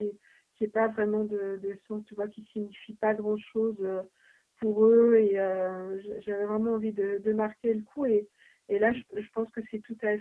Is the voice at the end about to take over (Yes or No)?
No